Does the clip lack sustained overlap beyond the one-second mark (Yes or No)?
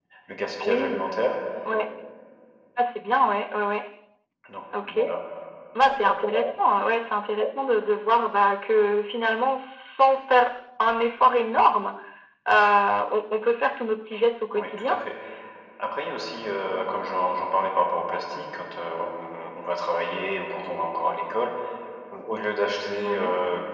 Yes